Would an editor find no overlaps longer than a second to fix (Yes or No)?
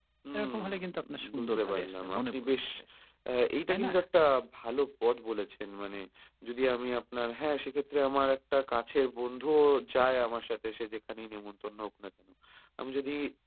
No